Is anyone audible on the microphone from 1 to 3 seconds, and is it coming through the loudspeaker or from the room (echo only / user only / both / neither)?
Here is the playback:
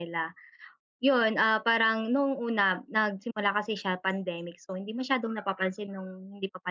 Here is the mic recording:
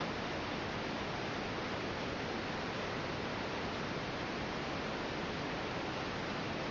neither